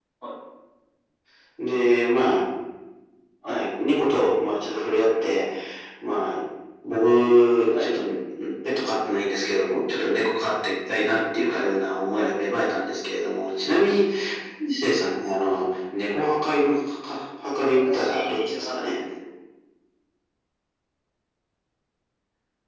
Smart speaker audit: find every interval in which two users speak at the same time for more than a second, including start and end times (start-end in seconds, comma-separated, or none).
17.6-19.0